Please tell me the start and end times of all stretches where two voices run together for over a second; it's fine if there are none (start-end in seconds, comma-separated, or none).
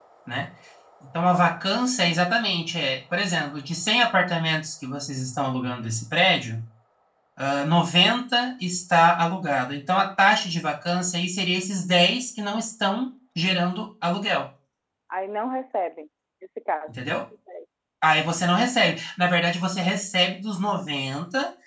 none